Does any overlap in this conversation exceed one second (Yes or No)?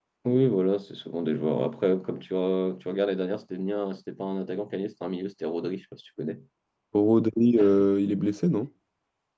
No